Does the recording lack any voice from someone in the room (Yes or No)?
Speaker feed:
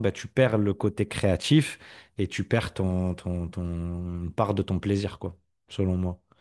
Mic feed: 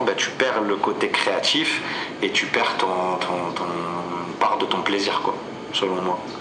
Yes